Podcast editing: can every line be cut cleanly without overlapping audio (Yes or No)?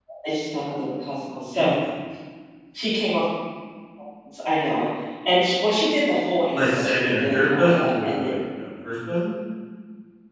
No